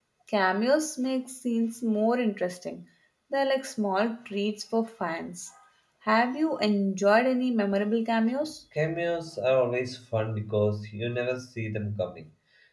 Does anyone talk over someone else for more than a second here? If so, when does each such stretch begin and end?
none

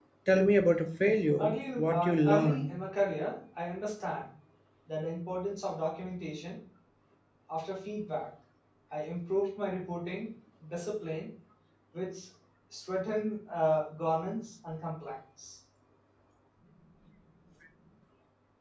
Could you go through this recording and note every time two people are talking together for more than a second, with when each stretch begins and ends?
1.4-2.7

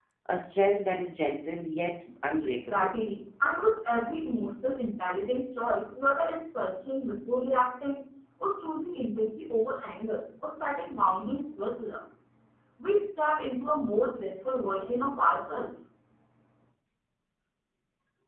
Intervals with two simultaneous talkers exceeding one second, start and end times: none

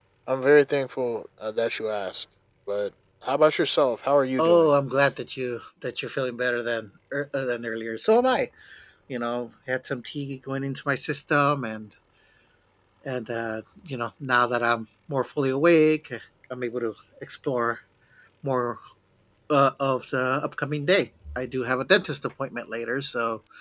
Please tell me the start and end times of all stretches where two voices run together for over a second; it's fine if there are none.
none

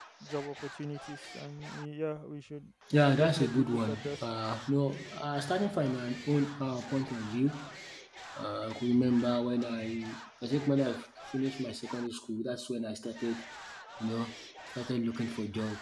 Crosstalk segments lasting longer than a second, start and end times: 2.9-4.2

